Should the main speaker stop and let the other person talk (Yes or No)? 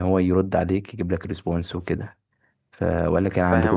Yes